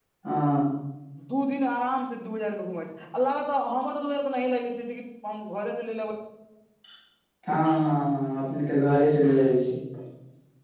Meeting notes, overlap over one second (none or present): none